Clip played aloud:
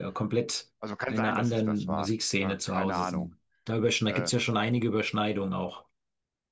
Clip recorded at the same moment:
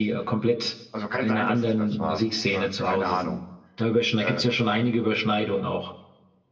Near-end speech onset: none

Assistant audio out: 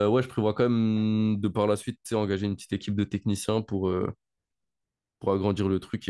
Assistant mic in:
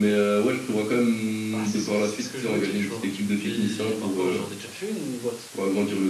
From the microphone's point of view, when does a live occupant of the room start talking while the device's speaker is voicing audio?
1.5 s

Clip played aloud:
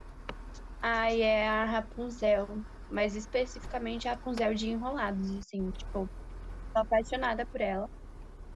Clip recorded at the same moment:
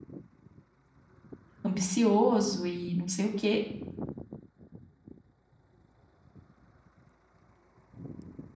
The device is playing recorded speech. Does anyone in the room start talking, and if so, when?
1.6 s

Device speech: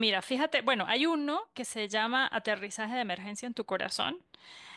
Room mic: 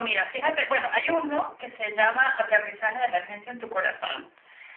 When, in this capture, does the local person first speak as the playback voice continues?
none

